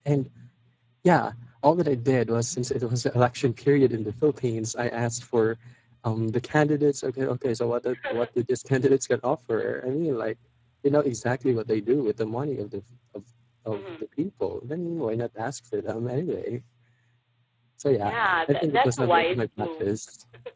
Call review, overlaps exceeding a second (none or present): present